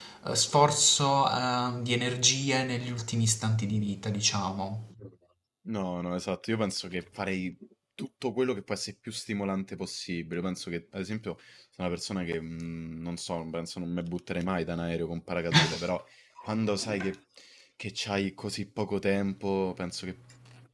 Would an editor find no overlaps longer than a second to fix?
Yes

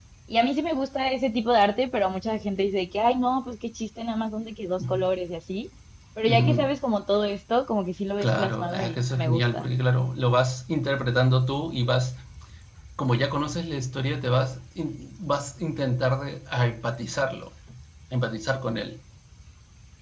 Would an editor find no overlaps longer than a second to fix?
No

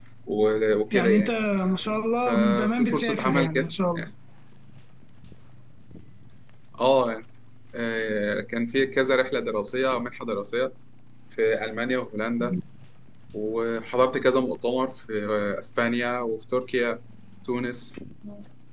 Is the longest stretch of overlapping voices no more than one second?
No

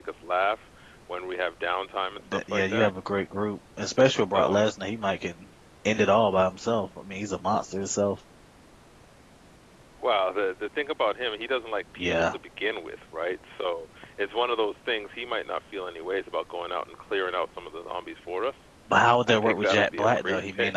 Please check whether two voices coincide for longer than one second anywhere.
Yes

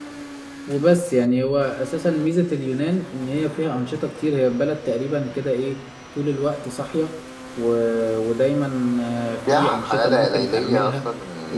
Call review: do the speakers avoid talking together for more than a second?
No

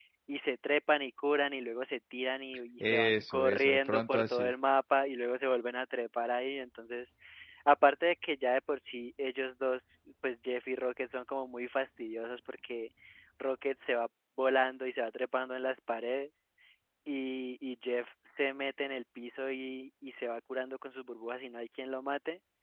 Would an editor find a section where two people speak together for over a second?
Yes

